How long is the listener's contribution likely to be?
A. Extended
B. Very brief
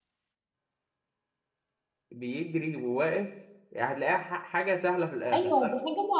A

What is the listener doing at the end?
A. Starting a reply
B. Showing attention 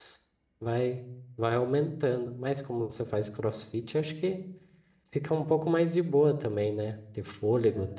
A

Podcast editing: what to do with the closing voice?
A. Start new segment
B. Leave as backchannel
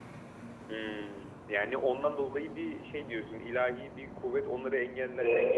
A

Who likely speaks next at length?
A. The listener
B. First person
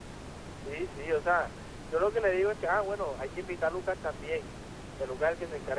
B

